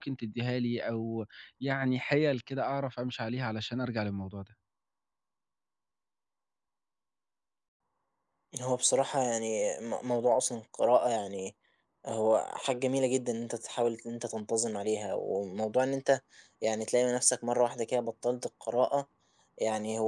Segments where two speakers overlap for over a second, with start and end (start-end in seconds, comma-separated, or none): none